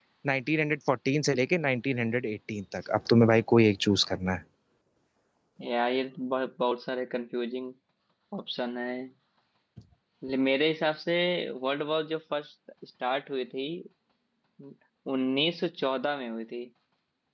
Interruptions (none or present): none